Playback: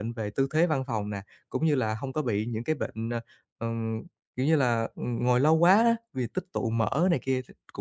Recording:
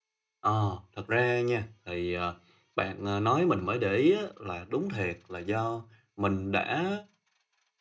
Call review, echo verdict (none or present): none